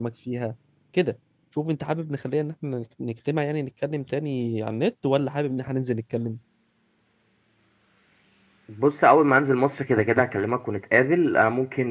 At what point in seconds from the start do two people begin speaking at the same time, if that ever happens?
none

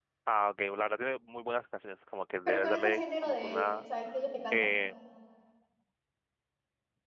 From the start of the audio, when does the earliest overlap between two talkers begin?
2.5 s

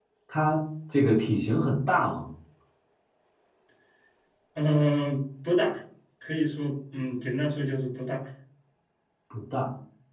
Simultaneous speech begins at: none

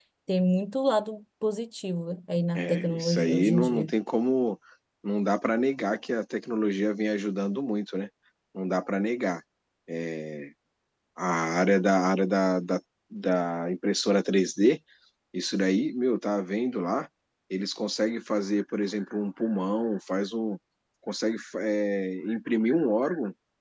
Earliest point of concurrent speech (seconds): 2.5 s

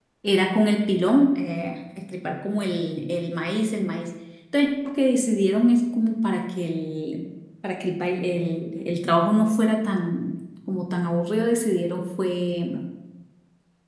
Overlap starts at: none

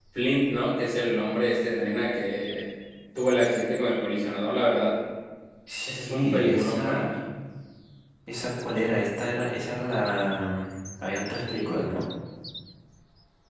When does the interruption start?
5.9 s

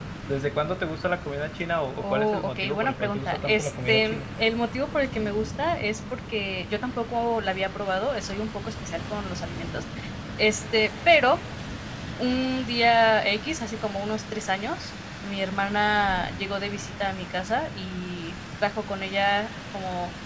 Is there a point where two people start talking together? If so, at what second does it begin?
2.0 s

